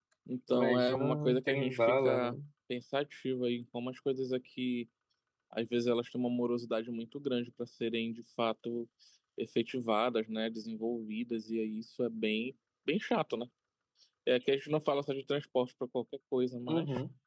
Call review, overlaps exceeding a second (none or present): present